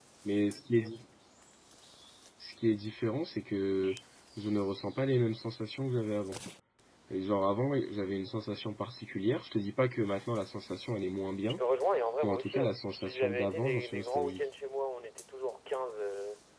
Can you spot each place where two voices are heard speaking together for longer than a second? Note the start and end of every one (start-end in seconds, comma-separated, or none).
12.2-14.4